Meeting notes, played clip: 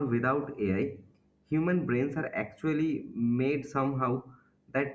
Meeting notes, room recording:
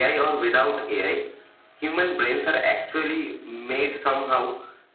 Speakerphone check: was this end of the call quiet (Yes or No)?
Yes